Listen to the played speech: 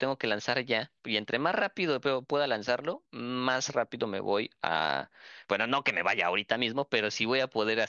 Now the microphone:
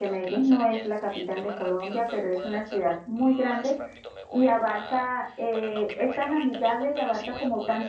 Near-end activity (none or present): present